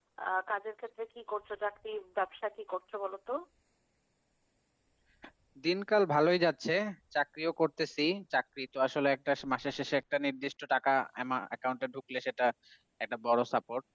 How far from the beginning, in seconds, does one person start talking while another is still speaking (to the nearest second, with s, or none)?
none